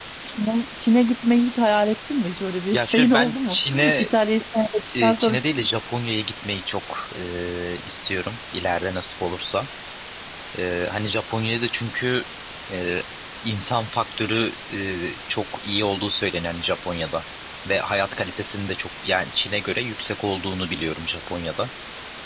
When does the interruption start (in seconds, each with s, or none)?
2.7 s